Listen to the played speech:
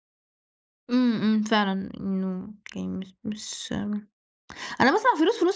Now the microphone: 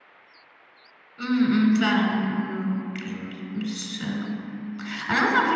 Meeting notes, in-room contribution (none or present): none